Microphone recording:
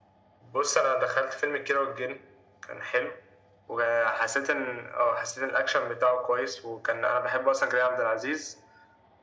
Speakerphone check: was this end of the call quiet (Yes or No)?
Yes